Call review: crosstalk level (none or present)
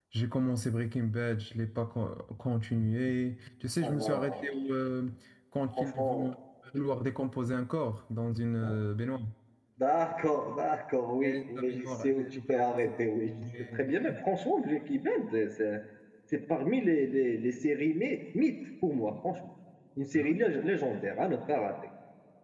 present